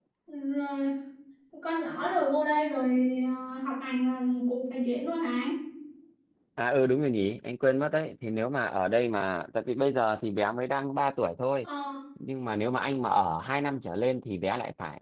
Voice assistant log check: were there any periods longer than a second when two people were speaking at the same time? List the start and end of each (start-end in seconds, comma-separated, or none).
none